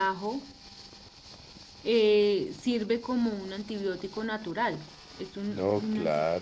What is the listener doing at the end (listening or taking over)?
taking over